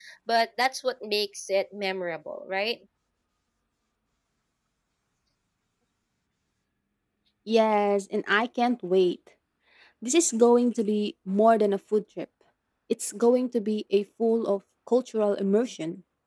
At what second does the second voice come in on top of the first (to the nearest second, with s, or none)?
none